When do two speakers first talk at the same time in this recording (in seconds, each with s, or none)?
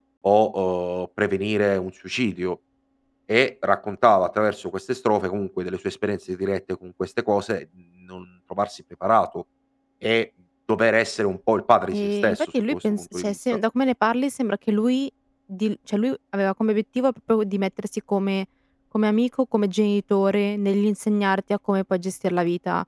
11.9 s